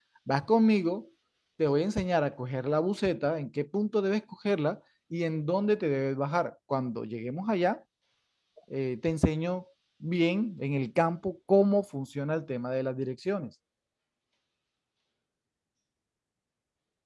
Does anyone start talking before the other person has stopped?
No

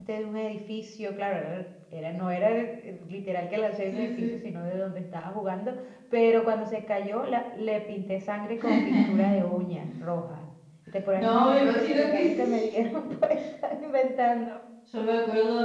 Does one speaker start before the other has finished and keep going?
Yes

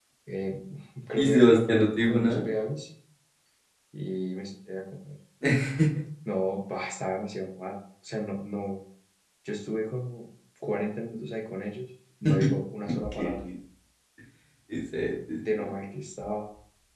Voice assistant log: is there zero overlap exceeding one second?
No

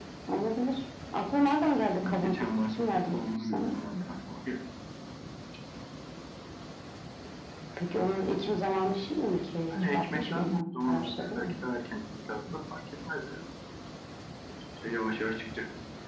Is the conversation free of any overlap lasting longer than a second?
No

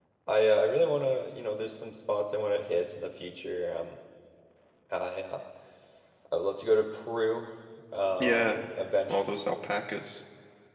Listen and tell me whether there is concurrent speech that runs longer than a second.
No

